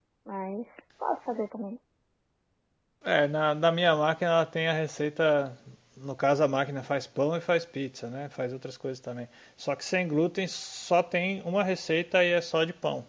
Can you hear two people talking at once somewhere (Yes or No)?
No